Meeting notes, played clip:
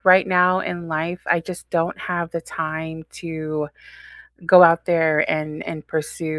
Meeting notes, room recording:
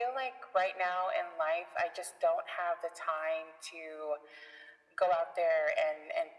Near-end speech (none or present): none